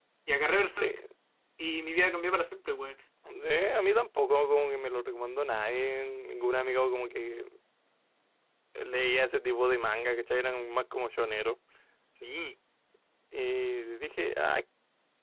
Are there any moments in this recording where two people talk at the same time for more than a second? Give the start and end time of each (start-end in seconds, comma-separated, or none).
none